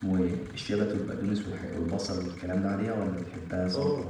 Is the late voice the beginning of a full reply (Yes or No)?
No